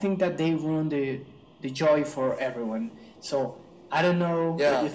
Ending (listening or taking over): taking over